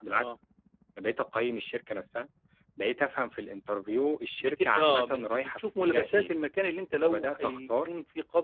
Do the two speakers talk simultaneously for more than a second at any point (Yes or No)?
Yes